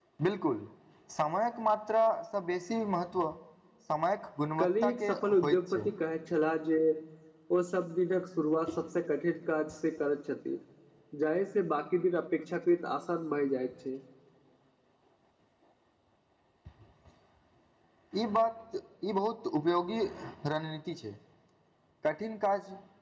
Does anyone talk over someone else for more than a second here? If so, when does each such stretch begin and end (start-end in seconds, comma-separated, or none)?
4.6-5.8